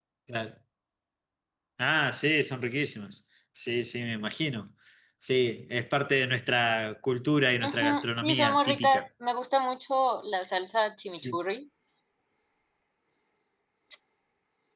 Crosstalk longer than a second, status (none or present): present